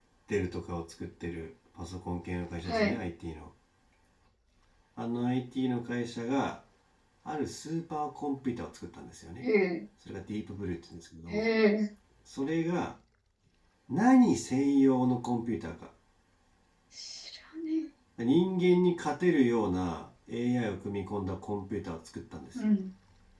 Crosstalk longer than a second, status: none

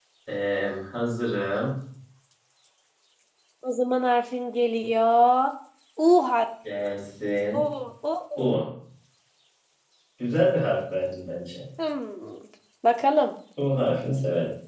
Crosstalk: none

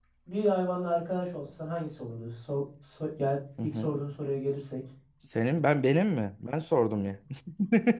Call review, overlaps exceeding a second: none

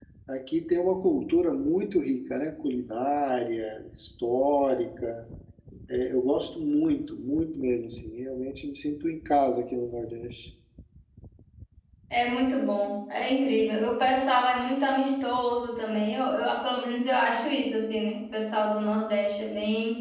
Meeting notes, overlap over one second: none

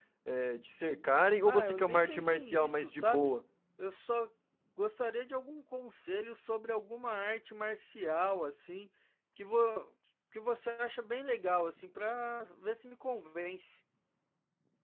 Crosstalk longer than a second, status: present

